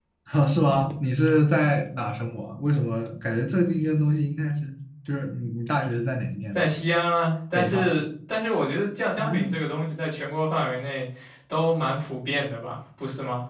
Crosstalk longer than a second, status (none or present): none